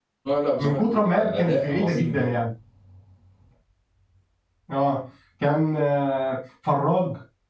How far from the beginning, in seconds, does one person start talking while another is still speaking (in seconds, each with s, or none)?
0.6 s